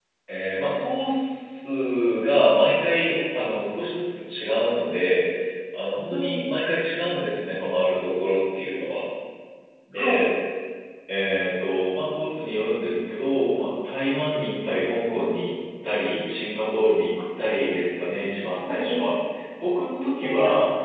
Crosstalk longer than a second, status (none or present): none